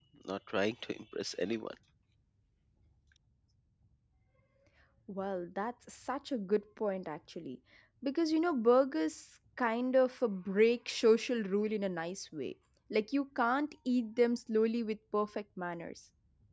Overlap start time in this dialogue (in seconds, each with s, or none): none